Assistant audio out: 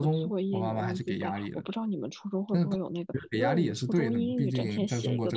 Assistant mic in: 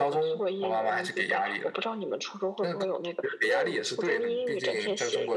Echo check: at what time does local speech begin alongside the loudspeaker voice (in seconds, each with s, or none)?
none